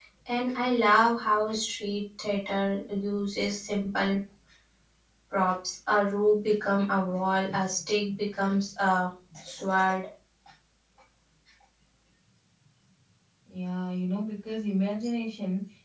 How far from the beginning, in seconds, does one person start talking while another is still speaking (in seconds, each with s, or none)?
none